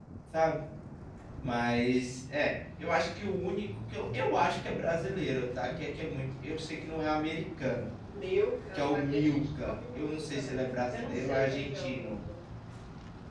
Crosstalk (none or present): present